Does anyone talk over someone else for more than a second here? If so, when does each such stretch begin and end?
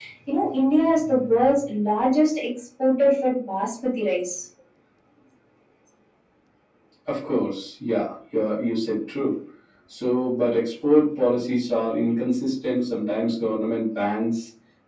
none

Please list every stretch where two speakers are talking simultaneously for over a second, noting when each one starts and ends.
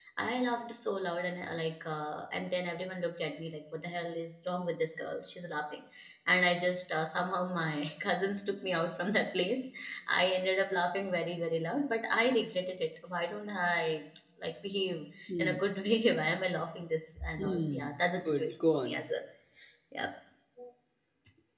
17.4-19.0

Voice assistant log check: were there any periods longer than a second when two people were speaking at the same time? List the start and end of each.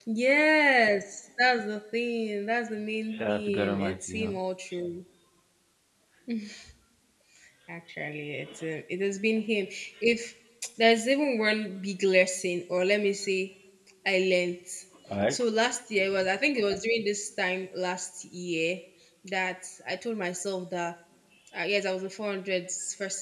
3.1-4.4

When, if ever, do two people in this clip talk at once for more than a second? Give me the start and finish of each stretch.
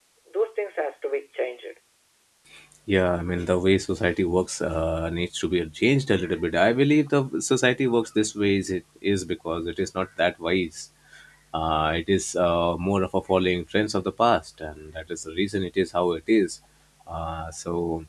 none

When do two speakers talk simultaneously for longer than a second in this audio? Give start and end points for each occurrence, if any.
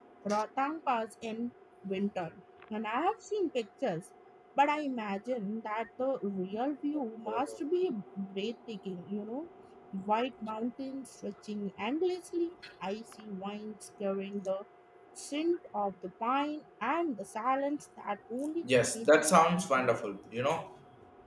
18.6-20.0

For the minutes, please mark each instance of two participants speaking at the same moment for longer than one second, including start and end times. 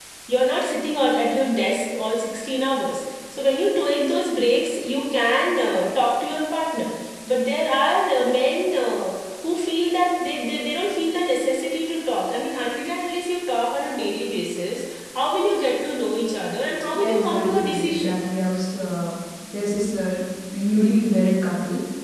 16.9-18.2

